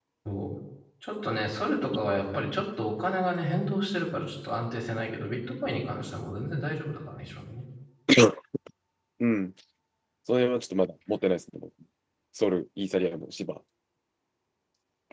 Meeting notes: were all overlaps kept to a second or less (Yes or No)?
Yes